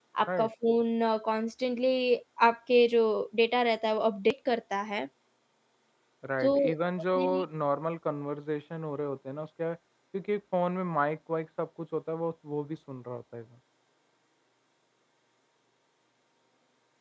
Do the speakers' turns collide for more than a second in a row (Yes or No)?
No